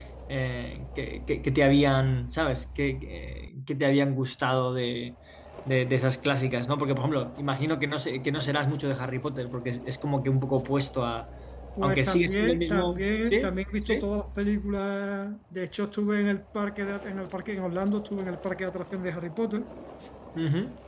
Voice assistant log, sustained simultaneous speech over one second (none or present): present